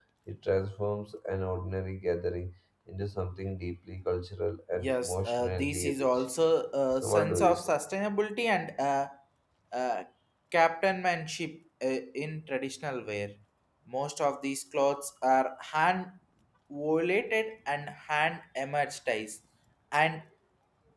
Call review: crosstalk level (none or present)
present